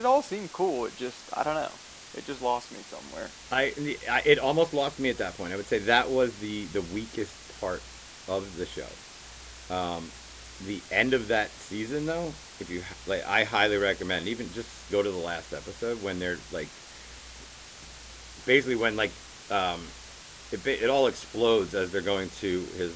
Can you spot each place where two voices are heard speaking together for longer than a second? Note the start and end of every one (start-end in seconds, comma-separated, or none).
none